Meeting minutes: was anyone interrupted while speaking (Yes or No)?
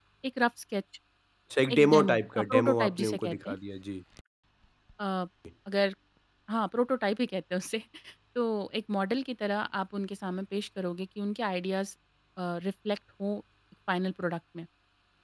Yes